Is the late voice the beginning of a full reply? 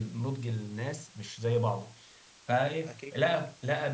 No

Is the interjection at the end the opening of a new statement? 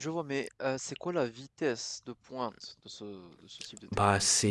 Yes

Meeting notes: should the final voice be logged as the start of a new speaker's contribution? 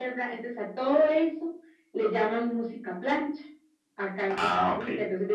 No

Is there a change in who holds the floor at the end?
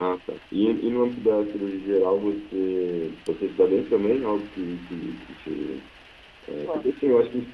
No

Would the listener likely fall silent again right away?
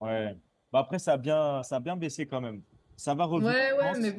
No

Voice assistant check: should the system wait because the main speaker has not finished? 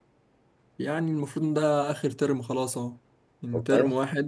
Yes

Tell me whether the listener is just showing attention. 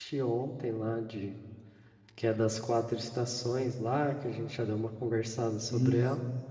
No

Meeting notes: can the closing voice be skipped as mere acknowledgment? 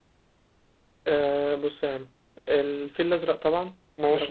Yes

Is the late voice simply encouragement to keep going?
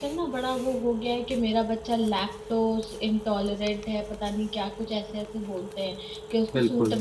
Yes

